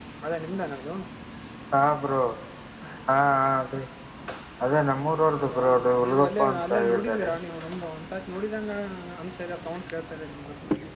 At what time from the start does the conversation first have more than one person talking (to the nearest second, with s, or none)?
5 s